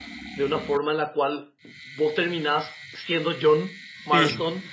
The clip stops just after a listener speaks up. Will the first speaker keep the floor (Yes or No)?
Yes